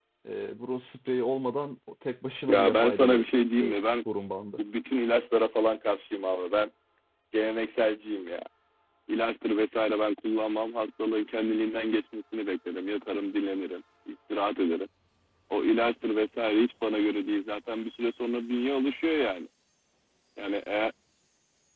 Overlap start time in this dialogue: 2.5 s

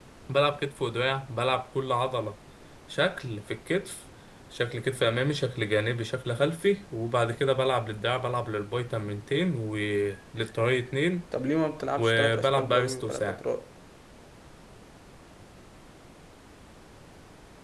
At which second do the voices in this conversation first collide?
12.0 s

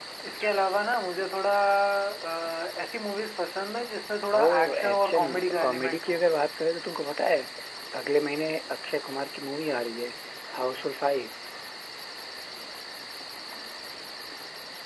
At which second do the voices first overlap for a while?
4.3 s

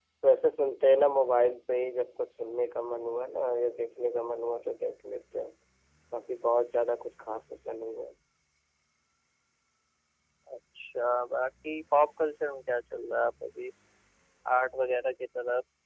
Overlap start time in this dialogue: none

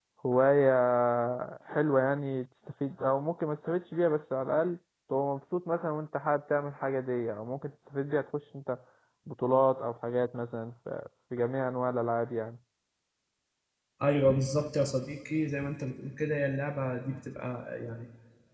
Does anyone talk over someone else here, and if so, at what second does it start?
none

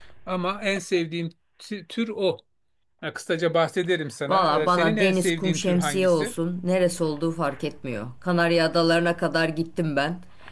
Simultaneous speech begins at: 4.3 s

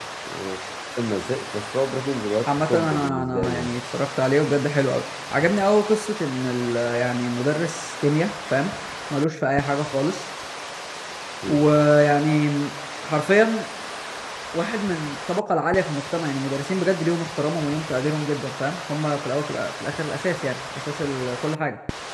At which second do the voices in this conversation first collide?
2.5 s

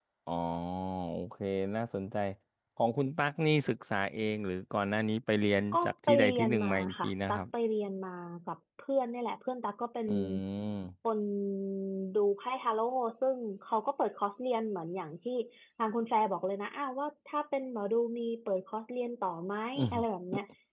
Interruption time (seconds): 5.7 s

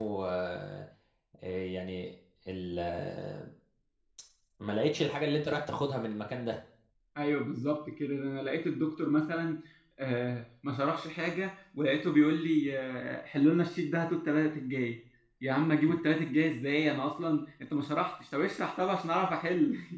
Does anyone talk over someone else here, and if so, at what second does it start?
none

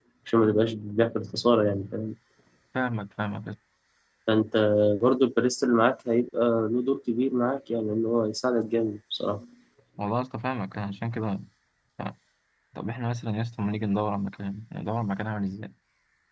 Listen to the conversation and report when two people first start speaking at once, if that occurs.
none

